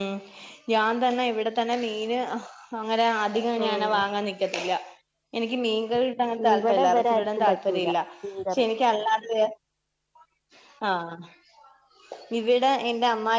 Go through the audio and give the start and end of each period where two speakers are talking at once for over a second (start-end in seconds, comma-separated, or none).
6.5-7.9